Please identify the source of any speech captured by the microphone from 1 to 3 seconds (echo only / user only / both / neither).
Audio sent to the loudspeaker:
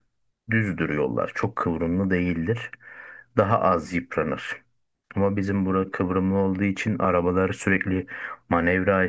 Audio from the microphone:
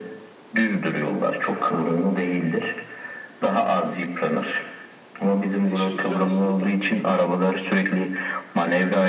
echo only